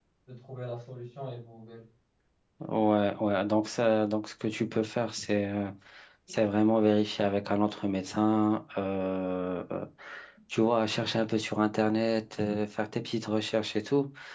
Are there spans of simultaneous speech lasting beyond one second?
No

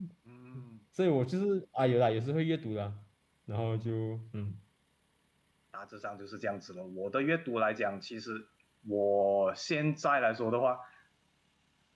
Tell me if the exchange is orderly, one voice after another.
Yes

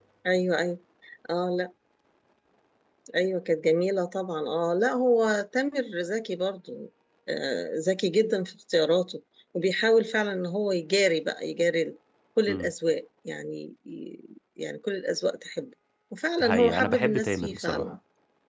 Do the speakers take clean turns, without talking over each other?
No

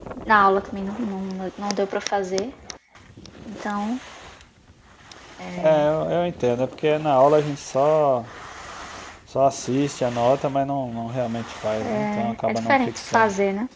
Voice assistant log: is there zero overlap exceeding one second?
No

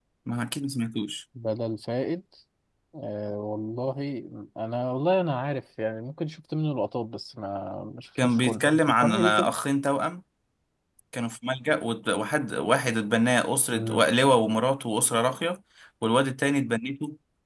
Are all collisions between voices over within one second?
No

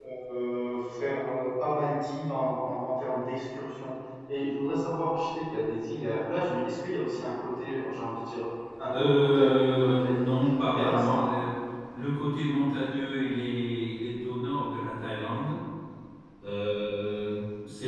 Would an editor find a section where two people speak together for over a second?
Yes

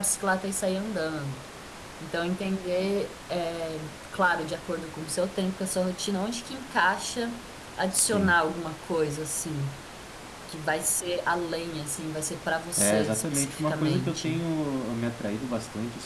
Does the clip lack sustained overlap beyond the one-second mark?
No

